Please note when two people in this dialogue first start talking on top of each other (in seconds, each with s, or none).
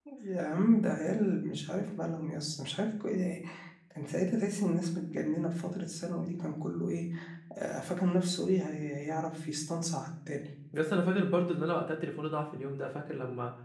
none